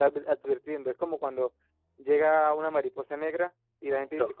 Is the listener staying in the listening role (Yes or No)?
Yes